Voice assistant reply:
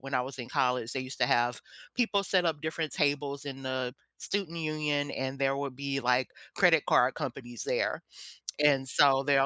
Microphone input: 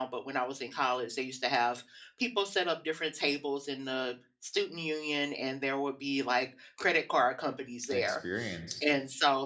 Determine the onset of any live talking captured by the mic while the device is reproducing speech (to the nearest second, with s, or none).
8 s